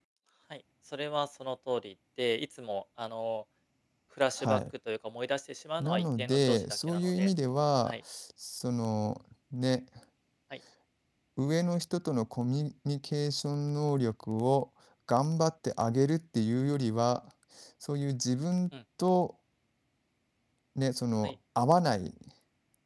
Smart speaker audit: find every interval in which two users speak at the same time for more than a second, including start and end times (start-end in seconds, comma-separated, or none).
5.8-7.3